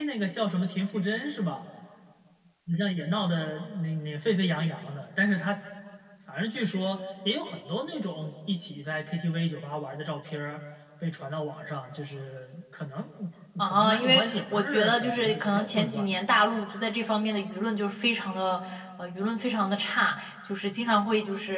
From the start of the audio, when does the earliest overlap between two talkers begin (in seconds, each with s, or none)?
13.6 s